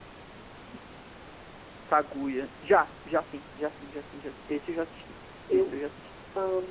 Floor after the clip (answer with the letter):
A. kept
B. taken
B